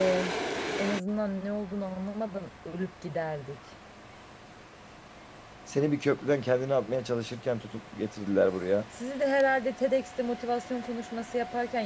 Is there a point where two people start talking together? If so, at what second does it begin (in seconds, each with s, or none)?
none